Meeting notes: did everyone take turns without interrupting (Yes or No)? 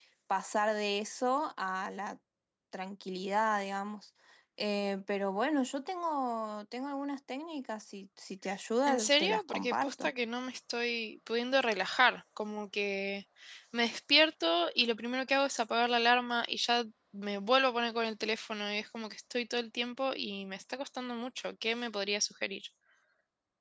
No